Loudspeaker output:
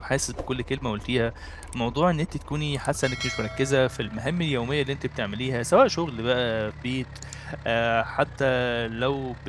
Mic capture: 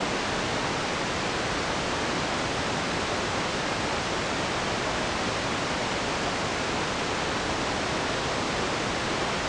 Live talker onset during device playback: none

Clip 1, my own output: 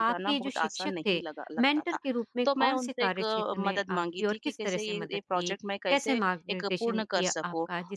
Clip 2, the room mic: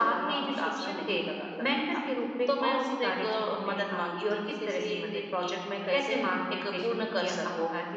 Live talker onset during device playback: none

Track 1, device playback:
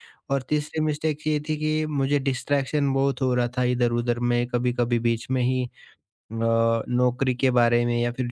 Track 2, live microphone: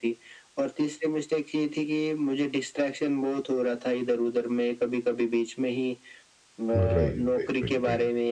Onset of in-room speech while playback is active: 6.8 s

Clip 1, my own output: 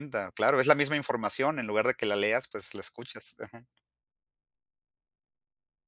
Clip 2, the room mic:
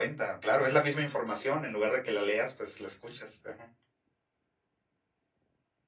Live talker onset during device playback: none

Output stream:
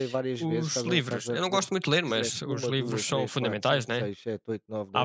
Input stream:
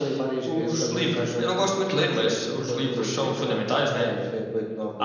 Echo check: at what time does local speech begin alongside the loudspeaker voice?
none

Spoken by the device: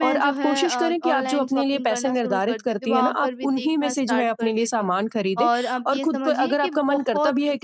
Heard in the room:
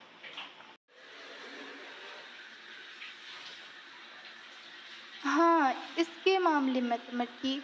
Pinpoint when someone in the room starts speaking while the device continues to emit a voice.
5.2 s

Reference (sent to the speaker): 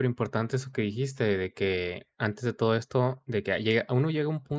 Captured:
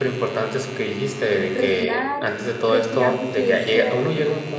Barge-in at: 1.5 s

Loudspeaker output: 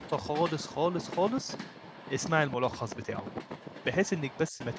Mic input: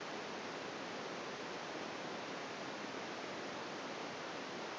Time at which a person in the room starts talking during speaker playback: none

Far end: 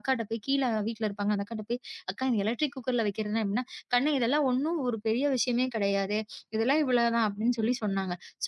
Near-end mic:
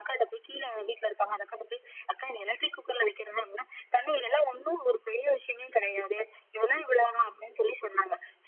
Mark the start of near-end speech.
none

